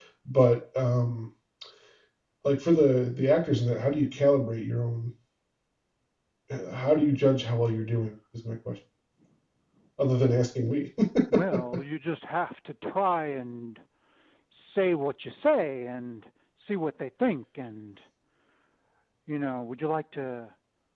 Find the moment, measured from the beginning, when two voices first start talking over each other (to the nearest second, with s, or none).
none